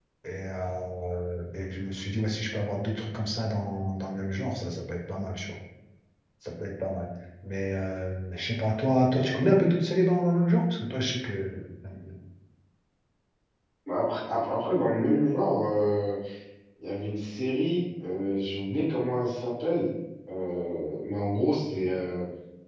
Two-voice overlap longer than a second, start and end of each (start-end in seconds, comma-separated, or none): none